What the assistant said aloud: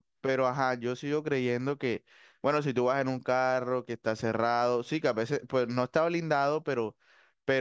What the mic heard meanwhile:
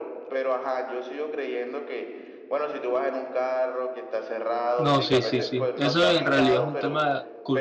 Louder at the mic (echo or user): user